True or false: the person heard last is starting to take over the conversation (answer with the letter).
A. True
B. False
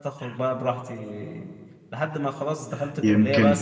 B